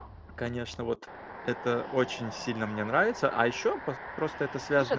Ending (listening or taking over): taking over